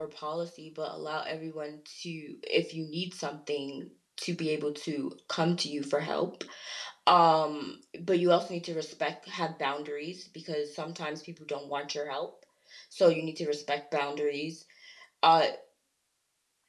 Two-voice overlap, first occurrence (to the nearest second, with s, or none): none